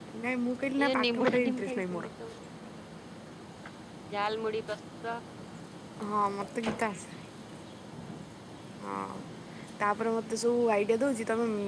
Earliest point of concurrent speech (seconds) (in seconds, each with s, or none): 0.8 s